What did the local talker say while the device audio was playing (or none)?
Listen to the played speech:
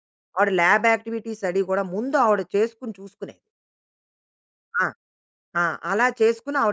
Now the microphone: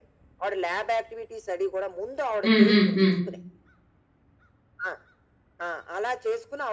హ్మ్. హ్మ్. హ్మ్.